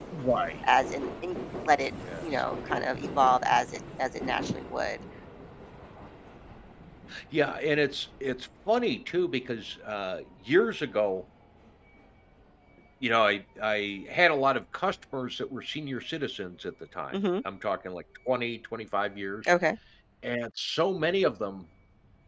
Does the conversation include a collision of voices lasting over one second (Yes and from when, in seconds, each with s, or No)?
No